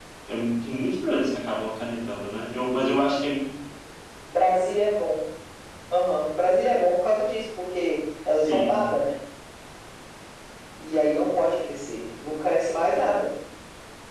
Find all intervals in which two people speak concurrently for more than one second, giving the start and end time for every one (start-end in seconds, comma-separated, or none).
none